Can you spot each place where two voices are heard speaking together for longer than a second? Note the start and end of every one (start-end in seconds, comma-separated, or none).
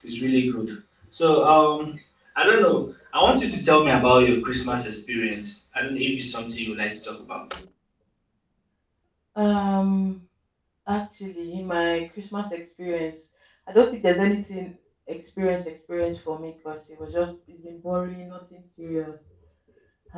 none